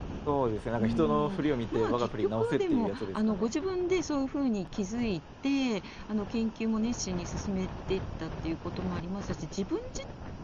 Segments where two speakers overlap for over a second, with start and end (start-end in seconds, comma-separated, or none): 0.8-3.5